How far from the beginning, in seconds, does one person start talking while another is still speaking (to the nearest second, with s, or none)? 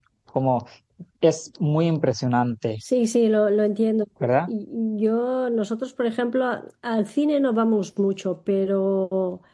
none